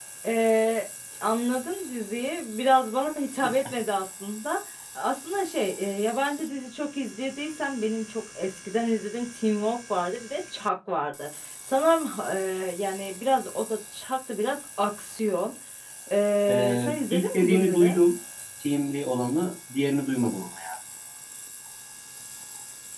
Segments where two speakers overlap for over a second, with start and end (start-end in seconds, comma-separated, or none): 16.5-18.0